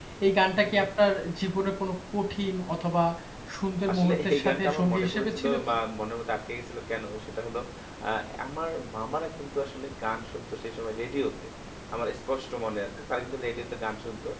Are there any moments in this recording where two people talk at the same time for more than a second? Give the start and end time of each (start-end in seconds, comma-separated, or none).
3.9-5.8